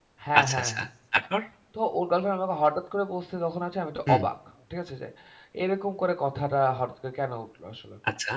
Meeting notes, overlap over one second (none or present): none